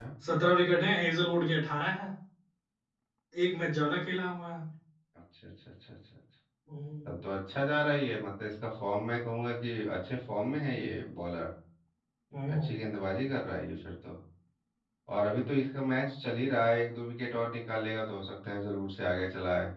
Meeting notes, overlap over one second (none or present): none